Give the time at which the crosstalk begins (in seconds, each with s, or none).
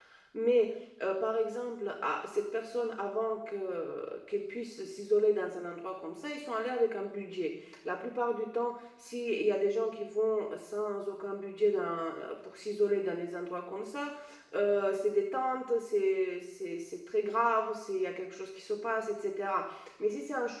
none